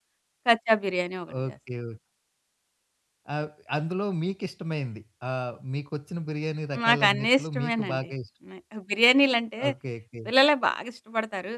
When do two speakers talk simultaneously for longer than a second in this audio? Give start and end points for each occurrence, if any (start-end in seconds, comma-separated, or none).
6.9-8.1